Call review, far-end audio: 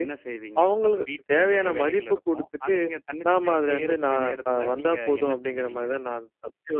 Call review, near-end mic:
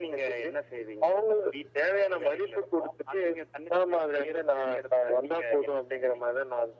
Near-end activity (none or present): none